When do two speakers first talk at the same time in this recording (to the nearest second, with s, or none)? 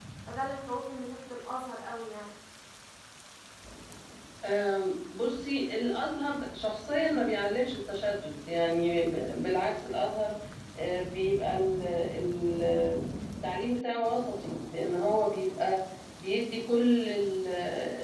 none